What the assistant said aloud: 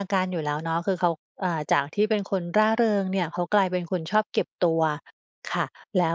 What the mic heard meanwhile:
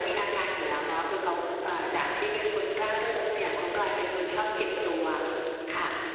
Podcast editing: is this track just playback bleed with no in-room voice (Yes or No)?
No